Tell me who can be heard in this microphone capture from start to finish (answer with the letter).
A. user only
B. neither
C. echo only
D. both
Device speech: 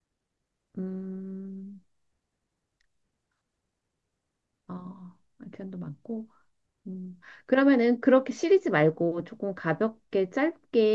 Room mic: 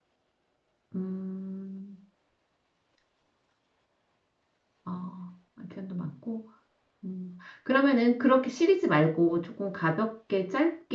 C